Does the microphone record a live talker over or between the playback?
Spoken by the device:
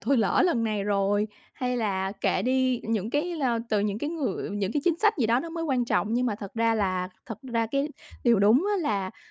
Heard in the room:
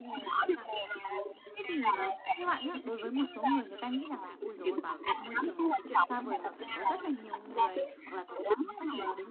Yes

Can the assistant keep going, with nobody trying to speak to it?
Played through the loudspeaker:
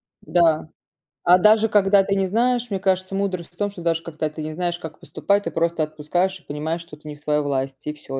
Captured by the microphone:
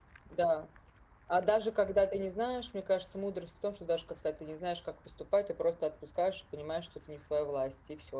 Yes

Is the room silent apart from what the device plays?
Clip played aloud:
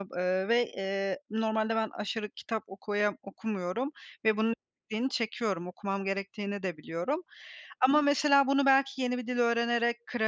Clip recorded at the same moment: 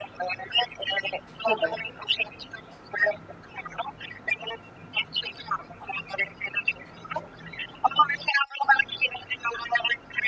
No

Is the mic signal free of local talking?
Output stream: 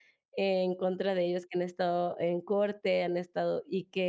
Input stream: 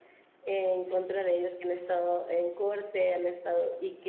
Yes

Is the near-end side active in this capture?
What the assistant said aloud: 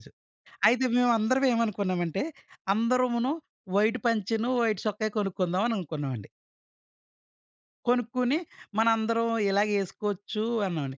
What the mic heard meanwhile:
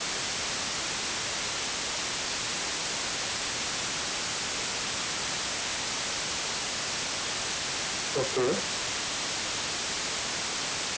Yes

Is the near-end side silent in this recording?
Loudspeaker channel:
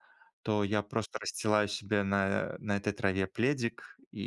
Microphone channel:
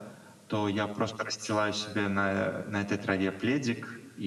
Yes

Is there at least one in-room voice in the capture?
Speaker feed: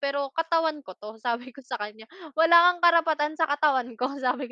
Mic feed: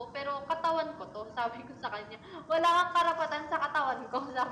No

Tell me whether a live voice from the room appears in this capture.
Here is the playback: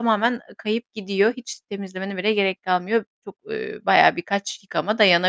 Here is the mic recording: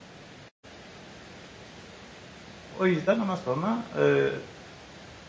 Yes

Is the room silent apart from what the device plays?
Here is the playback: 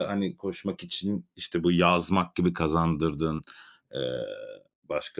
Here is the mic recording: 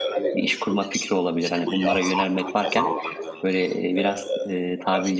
No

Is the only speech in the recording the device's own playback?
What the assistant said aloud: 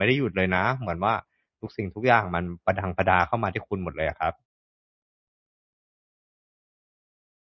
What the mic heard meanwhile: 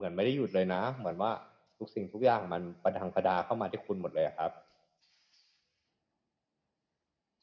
Yes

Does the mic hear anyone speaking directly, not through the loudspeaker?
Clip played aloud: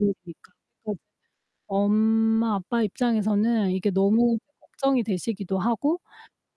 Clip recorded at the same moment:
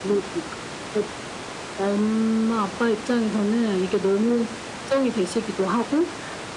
No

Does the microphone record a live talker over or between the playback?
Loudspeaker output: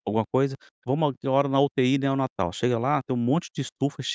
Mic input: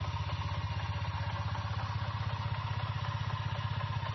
No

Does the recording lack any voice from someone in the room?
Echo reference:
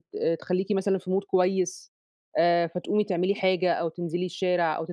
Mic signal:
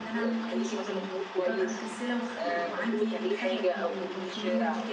No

